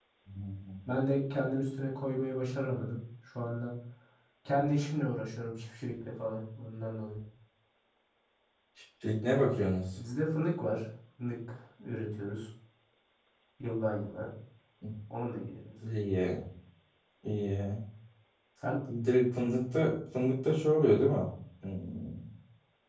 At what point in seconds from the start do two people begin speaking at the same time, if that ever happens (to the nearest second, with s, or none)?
none